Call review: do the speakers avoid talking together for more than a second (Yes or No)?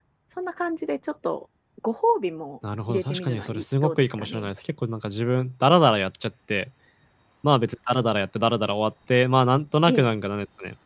No